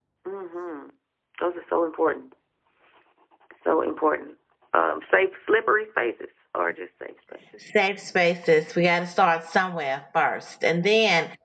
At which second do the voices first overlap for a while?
none

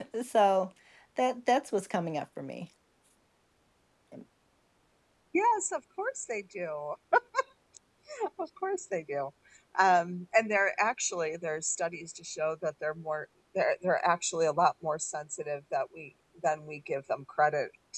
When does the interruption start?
none

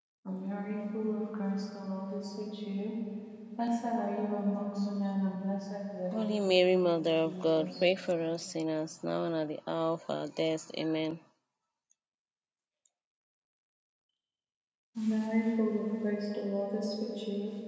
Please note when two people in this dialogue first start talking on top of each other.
6 s

